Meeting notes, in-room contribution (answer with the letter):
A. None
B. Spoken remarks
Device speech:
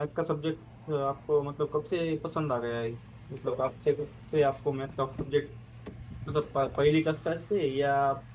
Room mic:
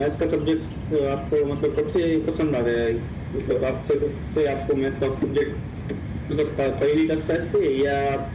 A